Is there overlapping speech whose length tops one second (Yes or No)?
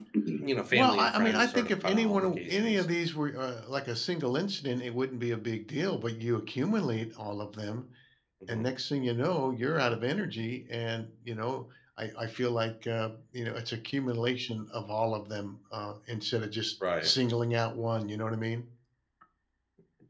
Yes